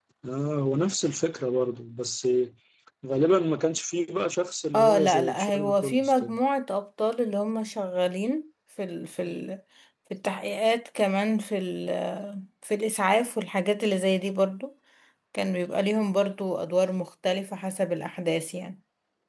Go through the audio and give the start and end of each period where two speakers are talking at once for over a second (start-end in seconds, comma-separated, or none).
4.7-6.4